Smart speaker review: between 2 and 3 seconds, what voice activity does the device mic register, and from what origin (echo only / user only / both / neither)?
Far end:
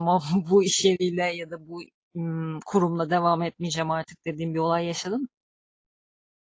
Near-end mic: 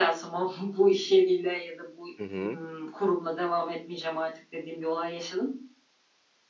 both